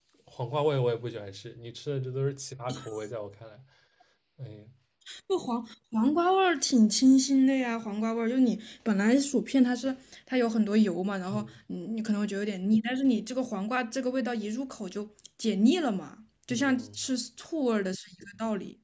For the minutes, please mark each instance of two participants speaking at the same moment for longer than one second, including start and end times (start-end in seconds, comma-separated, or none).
none